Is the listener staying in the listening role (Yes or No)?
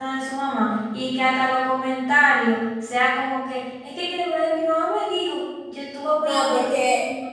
No